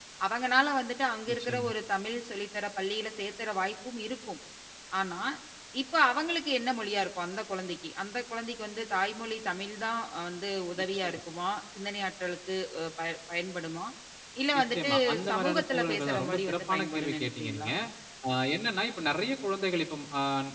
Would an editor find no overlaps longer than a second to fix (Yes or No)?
No